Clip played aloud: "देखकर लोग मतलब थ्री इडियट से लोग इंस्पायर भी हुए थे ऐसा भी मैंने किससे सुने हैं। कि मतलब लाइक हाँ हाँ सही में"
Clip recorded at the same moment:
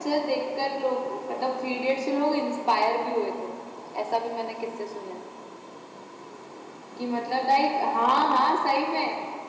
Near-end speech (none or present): none